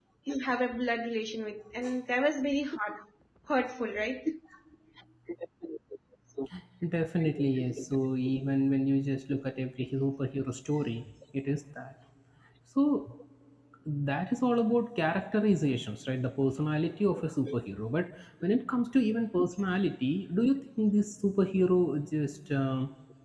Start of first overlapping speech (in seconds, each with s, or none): none